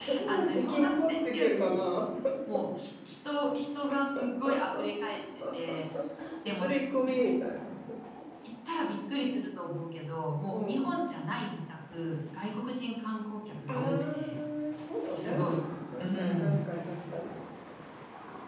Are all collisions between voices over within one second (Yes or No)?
No